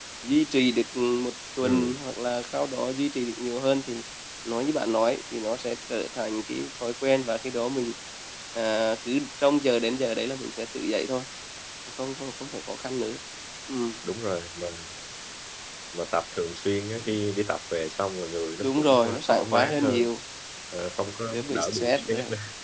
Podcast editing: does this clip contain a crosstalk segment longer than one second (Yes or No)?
Yes